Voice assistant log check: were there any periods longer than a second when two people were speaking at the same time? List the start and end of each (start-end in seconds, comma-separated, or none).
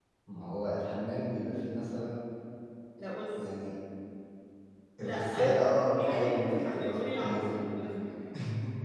6.0-7.6